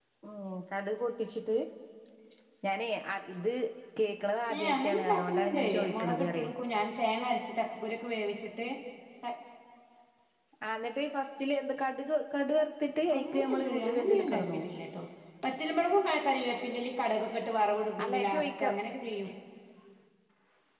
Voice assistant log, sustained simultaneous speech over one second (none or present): present